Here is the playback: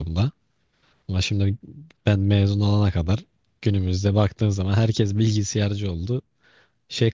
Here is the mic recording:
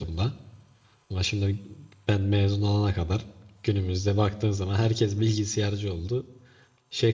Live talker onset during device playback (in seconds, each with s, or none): none